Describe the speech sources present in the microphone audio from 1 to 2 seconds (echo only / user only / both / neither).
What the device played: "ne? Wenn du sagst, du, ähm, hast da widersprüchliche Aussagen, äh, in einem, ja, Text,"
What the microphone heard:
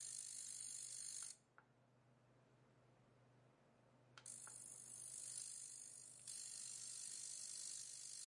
neither